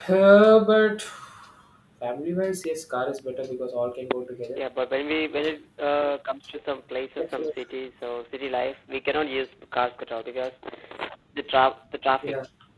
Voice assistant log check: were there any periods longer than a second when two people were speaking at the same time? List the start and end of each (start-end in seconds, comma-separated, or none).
none